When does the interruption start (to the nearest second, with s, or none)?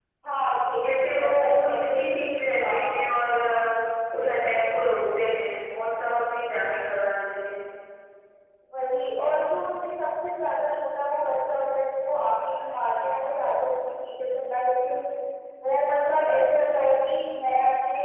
1 s